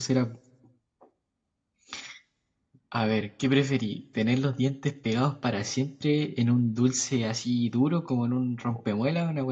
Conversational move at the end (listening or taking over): listening